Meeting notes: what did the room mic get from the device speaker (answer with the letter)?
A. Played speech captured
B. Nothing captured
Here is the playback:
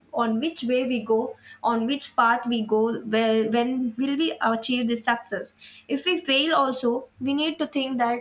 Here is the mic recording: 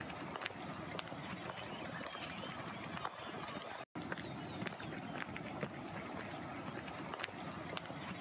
B